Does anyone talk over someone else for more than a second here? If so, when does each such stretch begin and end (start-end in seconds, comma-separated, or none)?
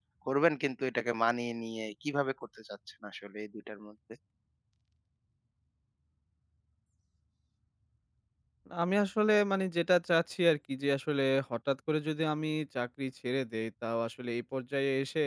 none